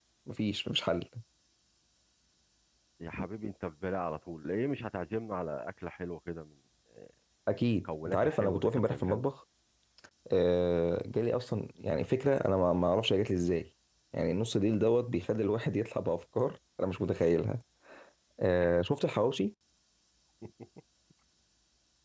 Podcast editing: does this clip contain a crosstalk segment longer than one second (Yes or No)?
Yes